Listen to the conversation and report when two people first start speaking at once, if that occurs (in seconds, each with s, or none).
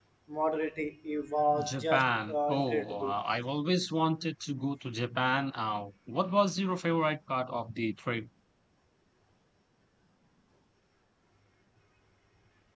1.5 s